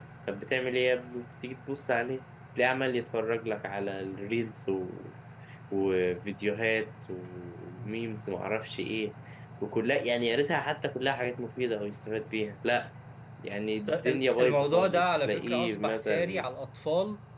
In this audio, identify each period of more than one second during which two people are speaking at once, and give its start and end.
13.7-16.5

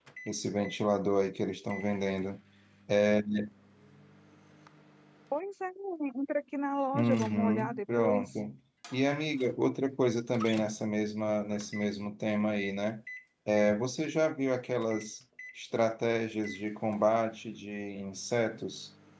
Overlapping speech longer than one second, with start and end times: 6.9-8.4

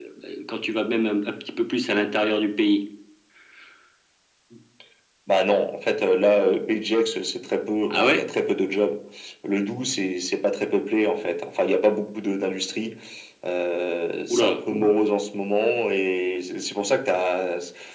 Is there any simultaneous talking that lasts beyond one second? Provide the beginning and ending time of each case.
none

